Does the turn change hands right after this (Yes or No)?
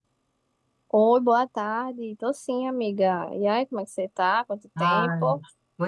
Yes